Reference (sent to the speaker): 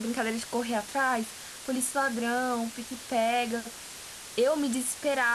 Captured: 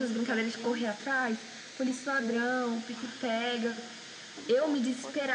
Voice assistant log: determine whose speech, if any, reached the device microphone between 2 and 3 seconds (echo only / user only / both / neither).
both